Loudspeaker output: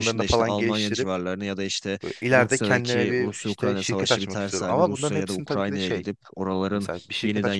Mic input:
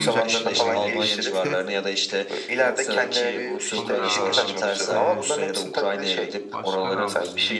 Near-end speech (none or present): present